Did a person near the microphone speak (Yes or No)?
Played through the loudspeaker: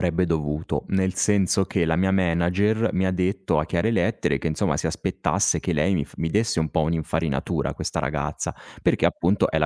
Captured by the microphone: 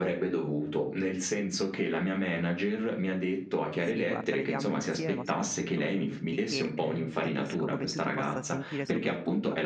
Yes